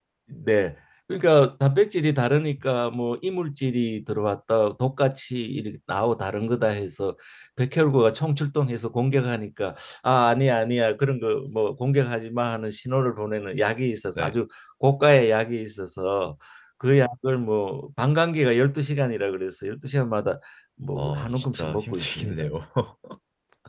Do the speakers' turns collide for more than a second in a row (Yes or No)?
Yes